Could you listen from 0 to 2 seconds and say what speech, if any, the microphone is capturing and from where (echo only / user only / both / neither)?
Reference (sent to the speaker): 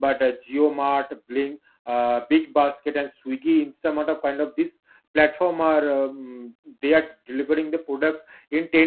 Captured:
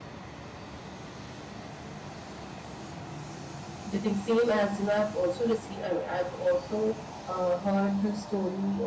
neither